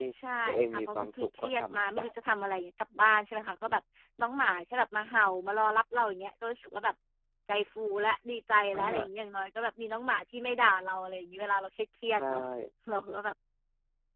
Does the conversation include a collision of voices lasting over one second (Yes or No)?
Yes